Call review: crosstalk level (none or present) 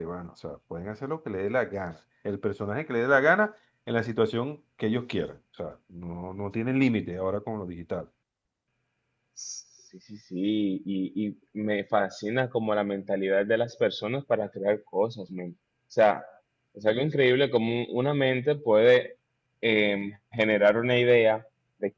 none